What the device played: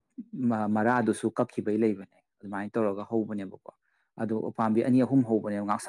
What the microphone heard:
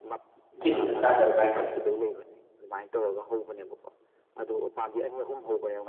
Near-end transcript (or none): ꯆꯤꯟꯗ ꯆꯥꯗꯕ꯭ꯔꯥ ꯍꯥꯏꯁꯦ